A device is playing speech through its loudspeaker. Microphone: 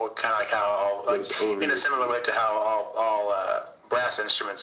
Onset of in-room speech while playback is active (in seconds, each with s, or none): 1.1 s